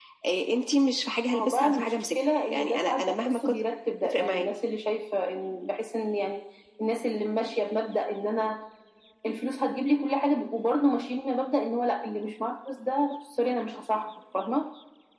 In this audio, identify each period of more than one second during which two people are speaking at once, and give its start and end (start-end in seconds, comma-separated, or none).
1.3-3.5